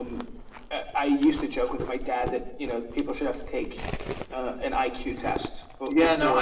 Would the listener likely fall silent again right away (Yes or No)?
No